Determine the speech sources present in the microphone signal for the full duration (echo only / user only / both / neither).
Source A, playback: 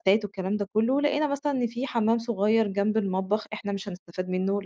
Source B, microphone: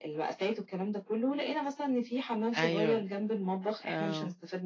both